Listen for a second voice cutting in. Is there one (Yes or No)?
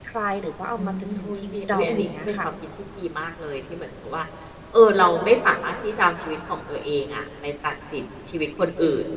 Yes